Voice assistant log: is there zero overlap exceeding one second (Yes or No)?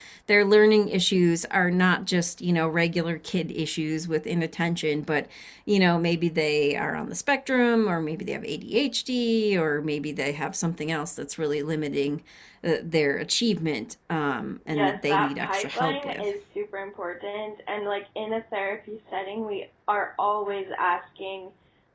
No